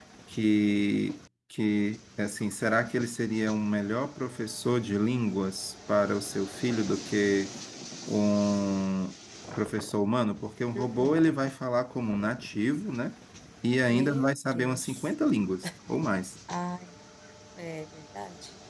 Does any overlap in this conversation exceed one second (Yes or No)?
Yes